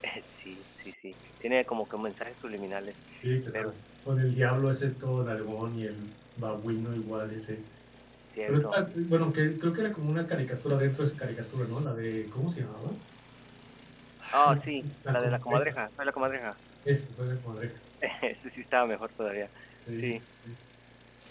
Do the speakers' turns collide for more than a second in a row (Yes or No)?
Yes